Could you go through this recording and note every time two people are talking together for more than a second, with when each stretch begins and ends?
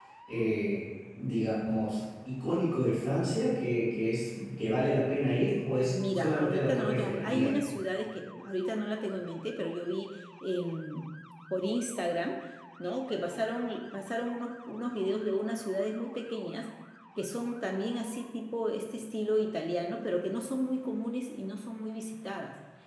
5.9-7.5

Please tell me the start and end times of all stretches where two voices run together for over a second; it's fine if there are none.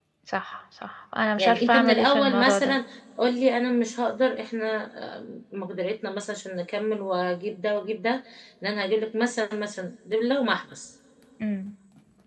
1.4-2.8

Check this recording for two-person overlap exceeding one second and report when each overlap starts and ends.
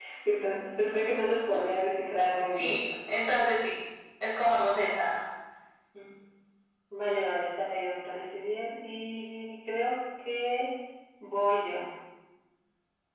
none

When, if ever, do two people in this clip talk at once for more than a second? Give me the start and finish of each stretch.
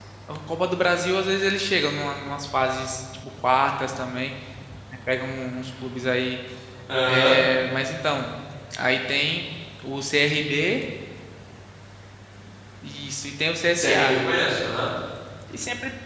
none

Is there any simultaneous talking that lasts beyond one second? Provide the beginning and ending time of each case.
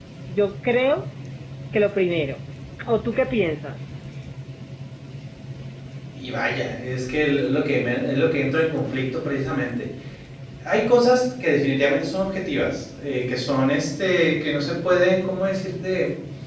none

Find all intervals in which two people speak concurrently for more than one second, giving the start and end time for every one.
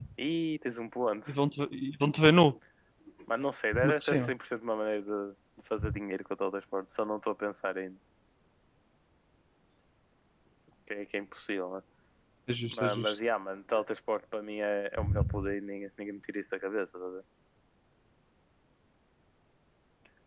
none

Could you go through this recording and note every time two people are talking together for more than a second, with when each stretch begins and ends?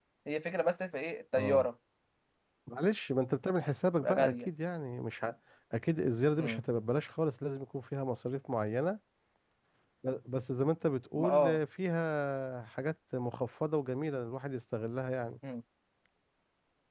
none

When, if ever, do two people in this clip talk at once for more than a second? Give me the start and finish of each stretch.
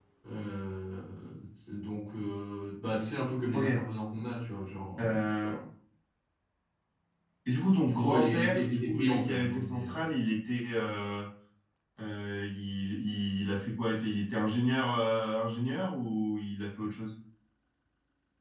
7.8-9.9

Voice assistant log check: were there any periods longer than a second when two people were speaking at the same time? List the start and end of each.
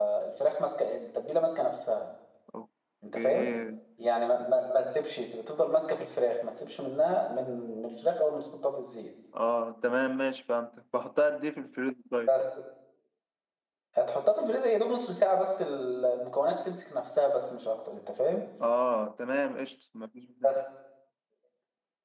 none

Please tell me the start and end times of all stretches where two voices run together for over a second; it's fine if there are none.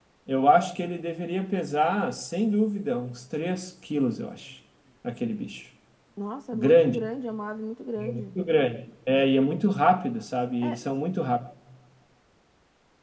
none

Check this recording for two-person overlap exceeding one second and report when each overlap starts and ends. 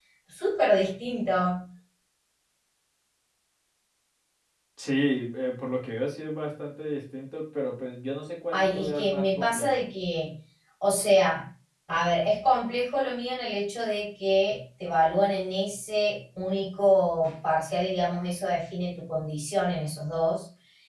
8.5-9.8

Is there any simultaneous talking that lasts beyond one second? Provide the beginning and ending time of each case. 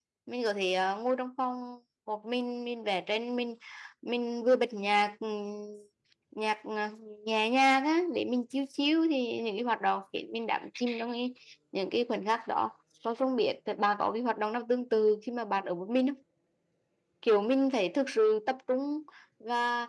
none

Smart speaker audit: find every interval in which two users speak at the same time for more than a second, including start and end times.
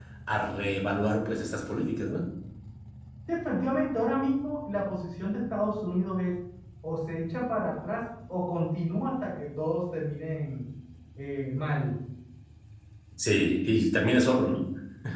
none

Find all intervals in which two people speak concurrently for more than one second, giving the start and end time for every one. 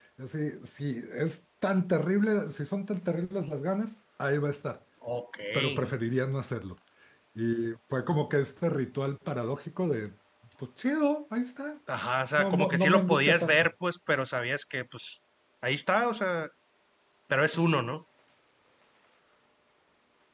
12.4-13.7

